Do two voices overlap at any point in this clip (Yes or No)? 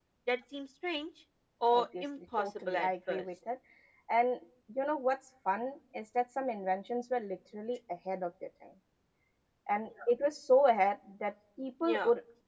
Yes